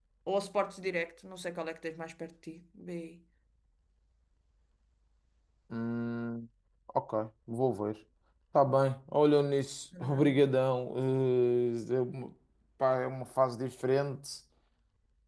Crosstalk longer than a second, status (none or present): none